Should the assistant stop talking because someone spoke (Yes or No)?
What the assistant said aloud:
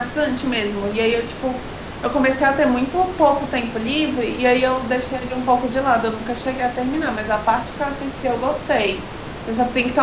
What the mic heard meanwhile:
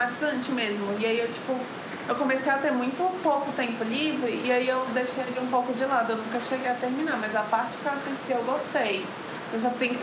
No